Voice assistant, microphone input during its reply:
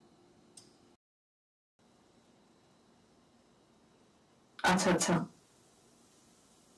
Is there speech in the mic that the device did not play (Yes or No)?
Yes